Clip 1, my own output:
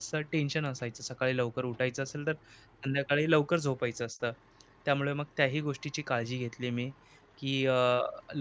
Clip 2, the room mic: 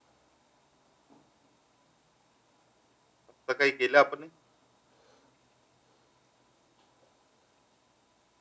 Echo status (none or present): none